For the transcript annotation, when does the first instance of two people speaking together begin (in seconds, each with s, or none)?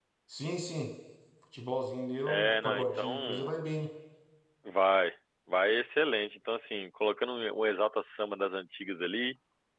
2.3 s